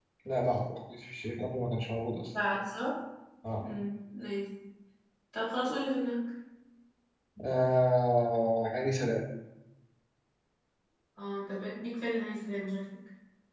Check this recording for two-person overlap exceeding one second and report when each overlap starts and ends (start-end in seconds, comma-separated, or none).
none